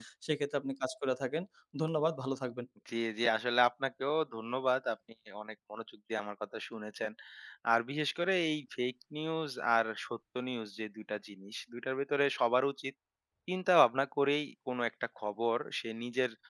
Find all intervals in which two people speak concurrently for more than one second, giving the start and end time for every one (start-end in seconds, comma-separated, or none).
none